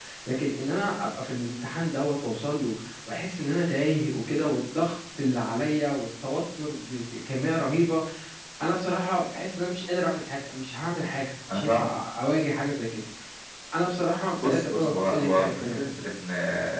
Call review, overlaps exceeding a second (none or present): present